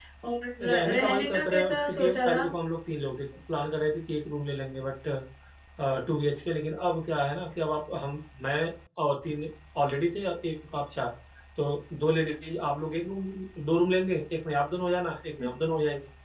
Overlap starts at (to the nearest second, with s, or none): 1 s